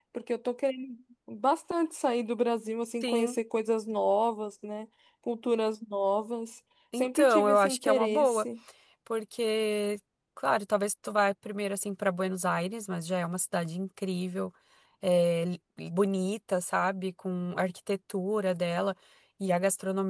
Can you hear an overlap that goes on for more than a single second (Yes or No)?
Yes